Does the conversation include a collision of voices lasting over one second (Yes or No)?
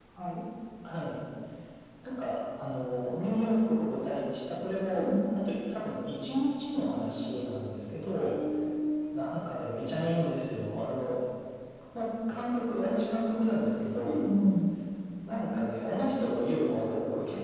No